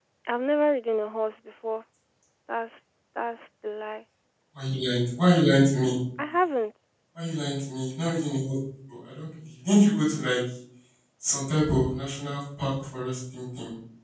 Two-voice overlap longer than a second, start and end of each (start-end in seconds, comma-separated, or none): none